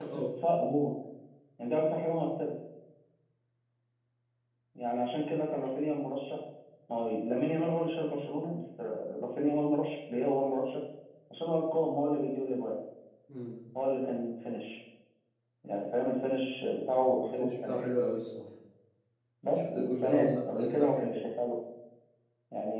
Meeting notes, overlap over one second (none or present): present